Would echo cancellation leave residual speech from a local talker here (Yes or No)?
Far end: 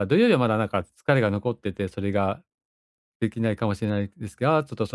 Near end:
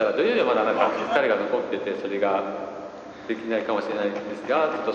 No